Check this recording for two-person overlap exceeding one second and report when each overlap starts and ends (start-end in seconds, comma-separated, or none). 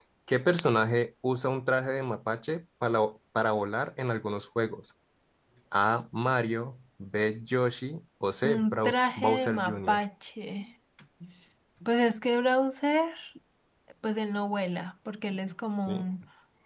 8.4-10.0